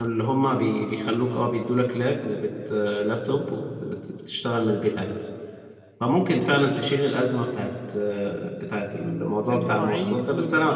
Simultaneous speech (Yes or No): Yes